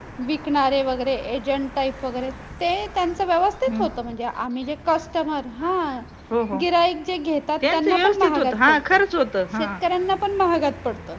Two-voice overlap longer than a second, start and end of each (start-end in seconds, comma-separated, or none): 7.6-9.0